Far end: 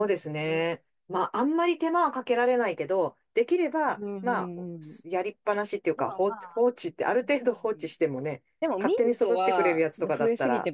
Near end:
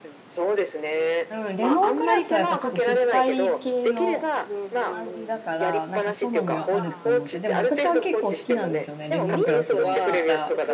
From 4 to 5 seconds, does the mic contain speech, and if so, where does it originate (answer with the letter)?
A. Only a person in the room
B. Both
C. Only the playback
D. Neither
B